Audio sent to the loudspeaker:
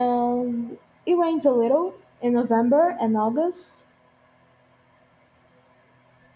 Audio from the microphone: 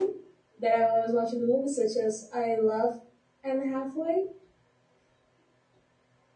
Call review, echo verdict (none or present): none